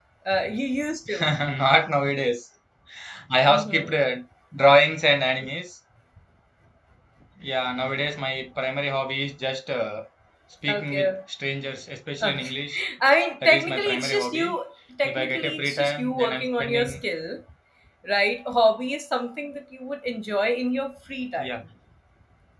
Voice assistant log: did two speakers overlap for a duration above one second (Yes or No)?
Yes